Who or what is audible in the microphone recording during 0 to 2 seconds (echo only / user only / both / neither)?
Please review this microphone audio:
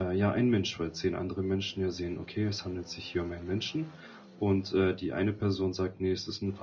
user only